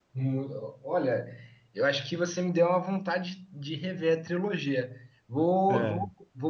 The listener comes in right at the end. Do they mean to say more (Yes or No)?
No